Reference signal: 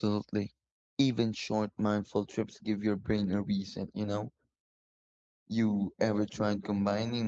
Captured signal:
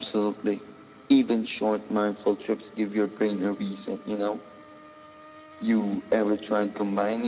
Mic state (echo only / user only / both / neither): echo only